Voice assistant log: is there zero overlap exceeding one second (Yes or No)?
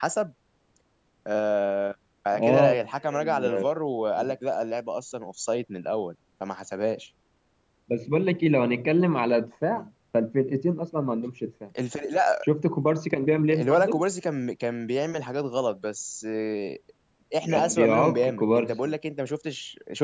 No